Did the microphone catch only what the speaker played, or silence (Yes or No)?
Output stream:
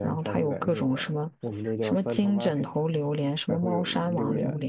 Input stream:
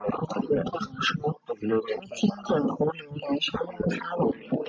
Yes